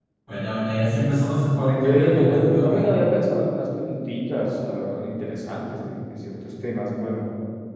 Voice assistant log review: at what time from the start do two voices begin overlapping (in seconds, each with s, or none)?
1.6 s